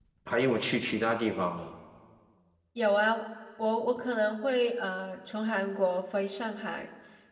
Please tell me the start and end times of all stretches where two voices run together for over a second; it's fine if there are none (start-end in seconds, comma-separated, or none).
none